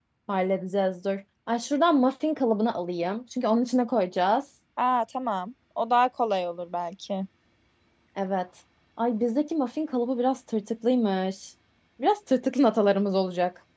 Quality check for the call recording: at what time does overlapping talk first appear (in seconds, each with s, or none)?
none